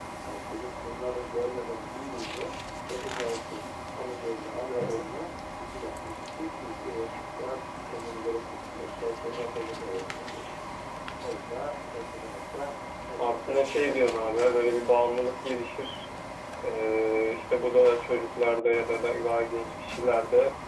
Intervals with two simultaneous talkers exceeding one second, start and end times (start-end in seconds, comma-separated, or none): 13.2-14.8